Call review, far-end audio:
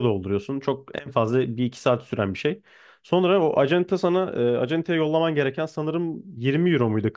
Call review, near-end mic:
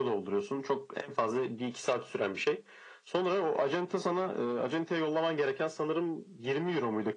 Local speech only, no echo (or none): none